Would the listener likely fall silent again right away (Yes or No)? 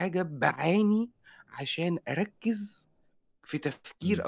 Yes